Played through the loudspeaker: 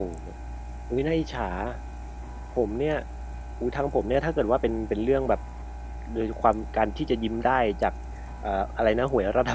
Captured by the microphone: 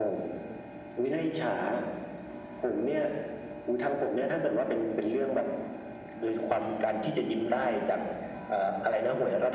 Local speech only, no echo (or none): none